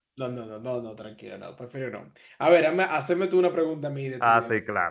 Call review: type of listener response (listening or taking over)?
taking over